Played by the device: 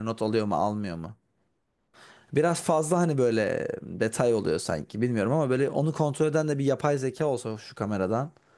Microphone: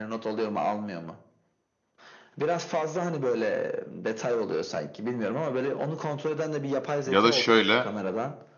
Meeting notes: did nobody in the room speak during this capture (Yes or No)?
No